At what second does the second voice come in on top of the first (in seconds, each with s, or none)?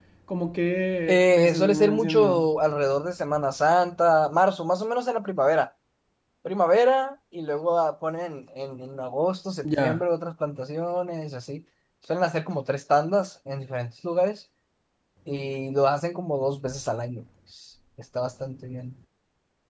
1.1 s